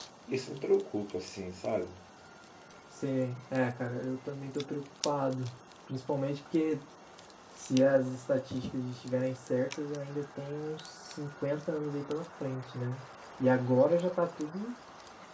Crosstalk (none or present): none